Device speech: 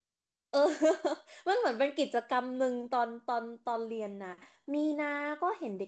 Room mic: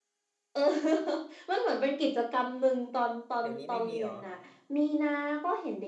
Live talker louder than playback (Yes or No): No